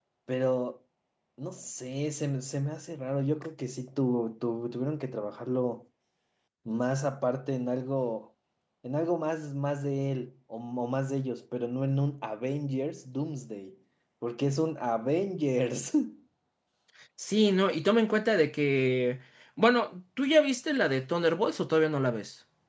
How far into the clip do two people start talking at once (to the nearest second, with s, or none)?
none